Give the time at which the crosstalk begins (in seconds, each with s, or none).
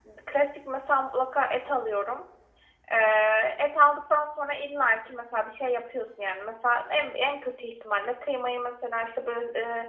none